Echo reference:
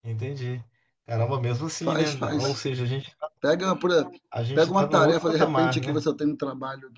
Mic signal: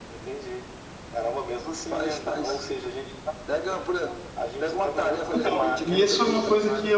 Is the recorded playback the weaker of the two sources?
Yes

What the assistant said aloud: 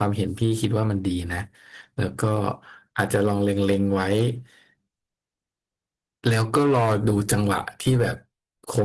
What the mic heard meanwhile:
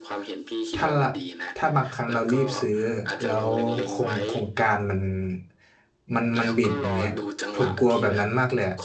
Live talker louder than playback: Yes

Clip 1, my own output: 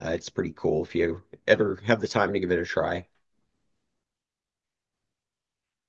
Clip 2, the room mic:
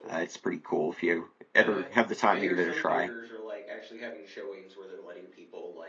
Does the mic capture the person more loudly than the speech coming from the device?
No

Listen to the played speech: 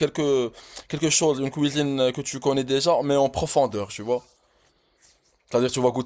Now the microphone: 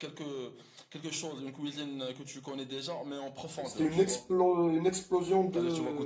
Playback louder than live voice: No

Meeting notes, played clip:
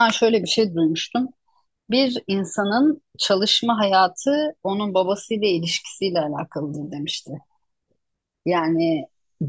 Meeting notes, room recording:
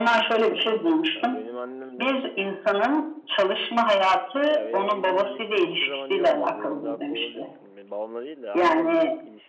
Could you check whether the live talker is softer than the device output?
Yes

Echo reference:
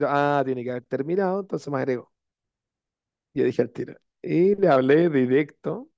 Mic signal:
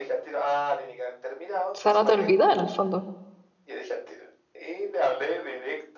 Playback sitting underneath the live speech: Yes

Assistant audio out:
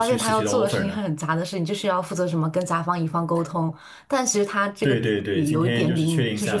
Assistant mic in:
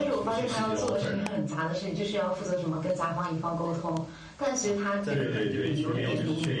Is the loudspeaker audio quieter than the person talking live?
No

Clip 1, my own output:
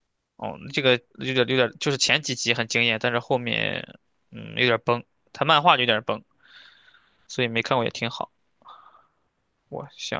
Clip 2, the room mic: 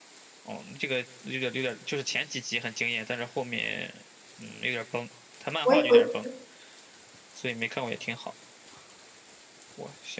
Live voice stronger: Yes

